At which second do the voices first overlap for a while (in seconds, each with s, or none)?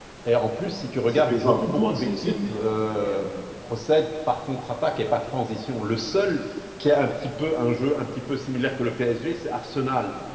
1.1 s